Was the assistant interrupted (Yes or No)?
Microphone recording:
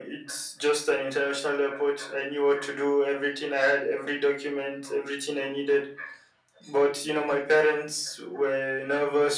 No